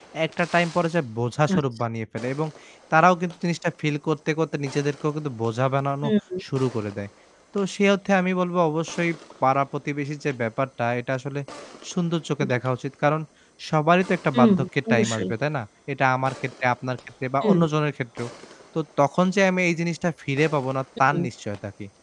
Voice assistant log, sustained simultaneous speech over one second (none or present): none